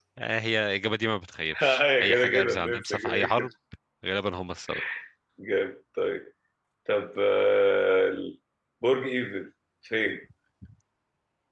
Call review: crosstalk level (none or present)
present